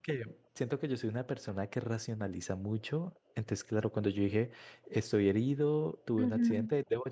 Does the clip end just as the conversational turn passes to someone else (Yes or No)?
No